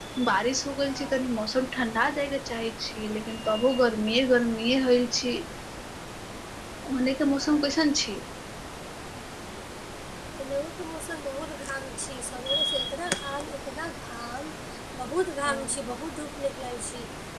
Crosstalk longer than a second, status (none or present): none